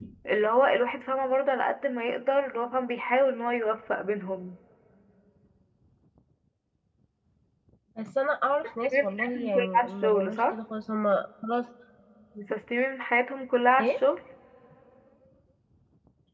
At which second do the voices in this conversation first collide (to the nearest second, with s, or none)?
9 s